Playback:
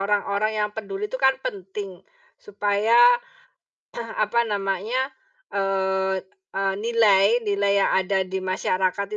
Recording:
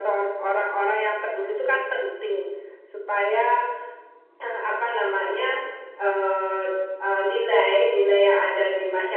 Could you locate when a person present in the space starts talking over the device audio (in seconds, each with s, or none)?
none